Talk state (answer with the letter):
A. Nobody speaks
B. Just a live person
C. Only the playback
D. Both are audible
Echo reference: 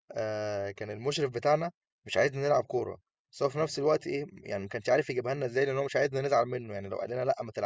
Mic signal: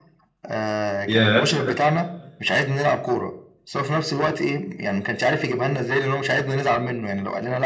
D